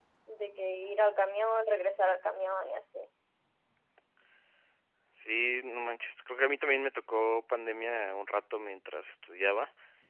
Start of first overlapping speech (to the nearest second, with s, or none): none